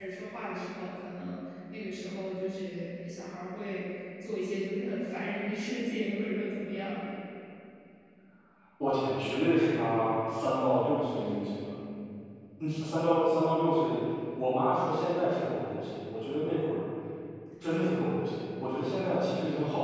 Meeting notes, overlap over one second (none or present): none